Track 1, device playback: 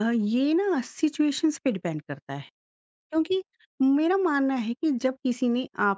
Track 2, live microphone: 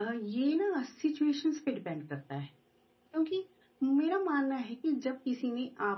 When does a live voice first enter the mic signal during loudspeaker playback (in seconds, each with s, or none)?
none